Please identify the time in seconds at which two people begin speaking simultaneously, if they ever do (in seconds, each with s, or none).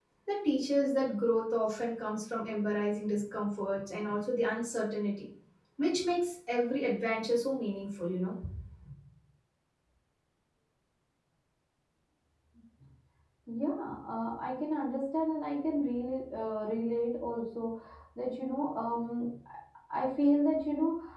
none